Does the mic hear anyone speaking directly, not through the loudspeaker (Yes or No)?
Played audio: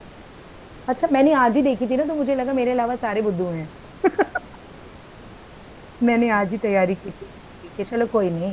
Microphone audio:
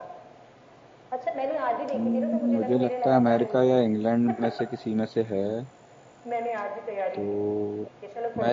Yes